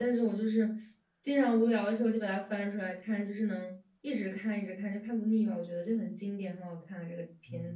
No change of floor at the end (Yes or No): No